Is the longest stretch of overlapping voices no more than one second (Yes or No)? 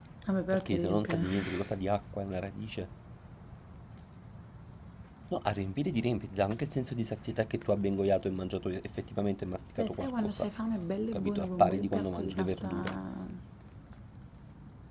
No